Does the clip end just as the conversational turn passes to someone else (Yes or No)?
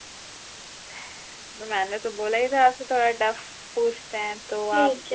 Yes